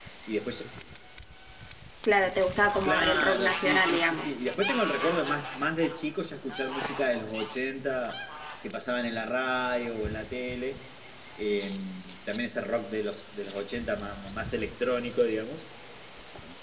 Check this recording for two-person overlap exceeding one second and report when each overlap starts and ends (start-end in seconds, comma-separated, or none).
2.8-4.3